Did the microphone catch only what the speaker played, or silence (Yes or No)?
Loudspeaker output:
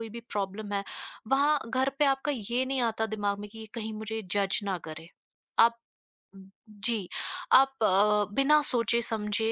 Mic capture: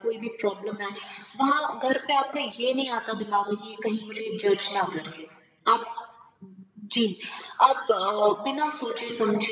Yes